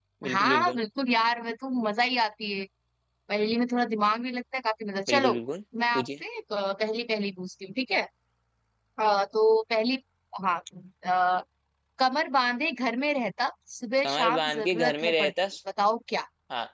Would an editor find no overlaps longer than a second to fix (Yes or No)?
No